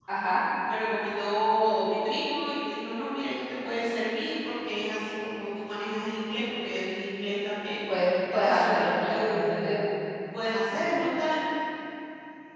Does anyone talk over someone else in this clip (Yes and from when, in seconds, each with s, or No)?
Yes, from 8.3 s